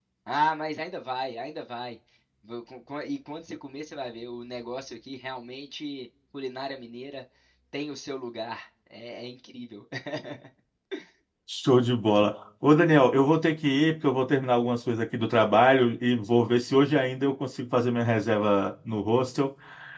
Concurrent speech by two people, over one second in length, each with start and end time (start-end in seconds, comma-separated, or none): none